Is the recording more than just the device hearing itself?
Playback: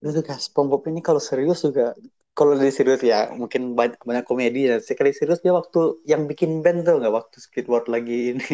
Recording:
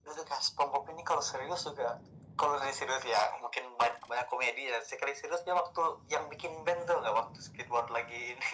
No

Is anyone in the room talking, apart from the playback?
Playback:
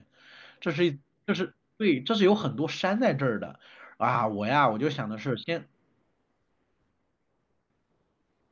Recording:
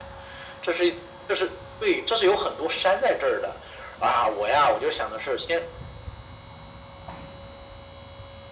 No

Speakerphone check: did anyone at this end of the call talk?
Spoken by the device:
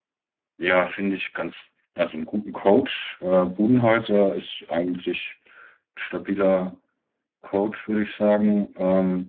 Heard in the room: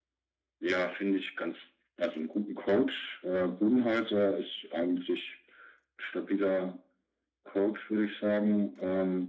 No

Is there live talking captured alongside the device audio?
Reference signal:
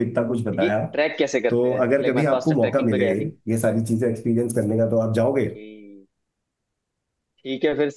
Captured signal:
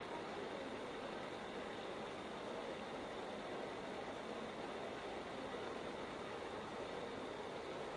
No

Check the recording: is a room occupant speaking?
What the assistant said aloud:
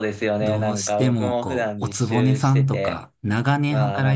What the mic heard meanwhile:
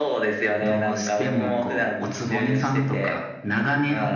No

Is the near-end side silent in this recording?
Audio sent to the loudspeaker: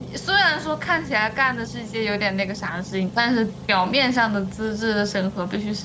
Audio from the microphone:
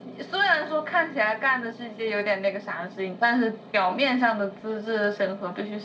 Yes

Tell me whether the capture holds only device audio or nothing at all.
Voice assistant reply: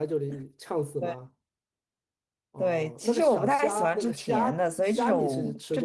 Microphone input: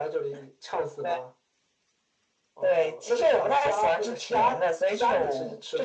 Yes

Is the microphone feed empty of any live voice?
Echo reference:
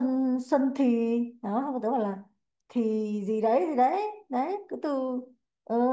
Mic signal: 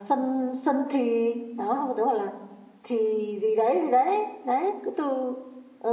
Yes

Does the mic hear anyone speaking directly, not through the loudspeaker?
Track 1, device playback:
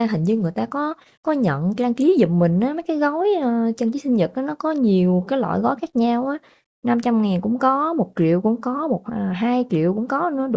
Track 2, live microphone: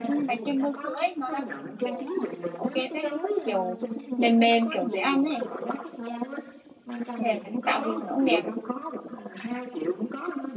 Yes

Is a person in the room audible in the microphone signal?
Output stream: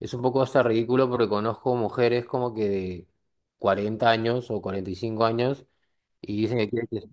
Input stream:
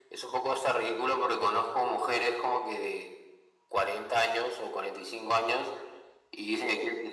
No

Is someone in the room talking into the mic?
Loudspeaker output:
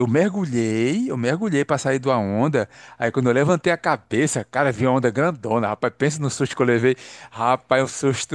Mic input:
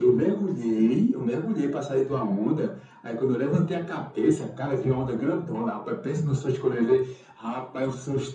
No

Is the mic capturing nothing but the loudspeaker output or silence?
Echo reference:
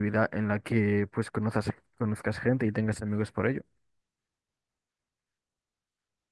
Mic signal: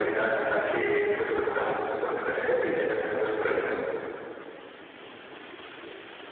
Yes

